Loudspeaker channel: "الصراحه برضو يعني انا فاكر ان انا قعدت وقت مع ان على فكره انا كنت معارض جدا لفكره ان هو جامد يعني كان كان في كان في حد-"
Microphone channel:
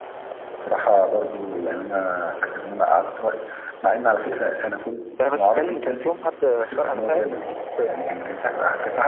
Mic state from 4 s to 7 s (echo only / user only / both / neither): both